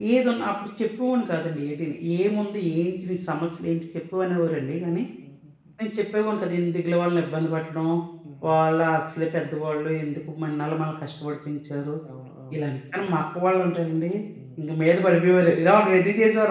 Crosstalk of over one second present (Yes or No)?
No